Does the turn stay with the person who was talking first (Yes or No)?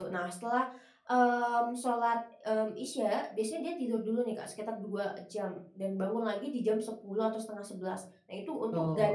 Yes